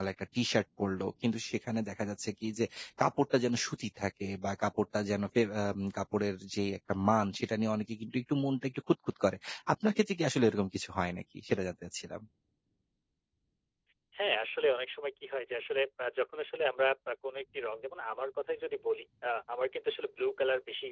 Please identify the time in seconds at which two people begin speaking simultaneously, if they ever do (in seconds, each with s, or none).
none